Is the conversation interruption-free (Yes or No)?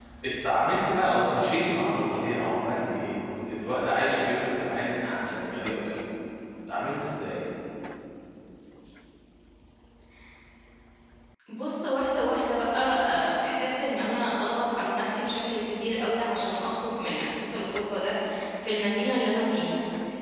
Yes